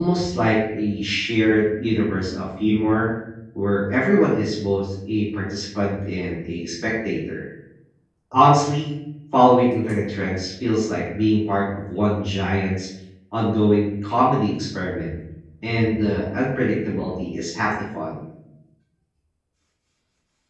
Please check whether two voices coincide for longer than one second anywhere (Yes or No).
No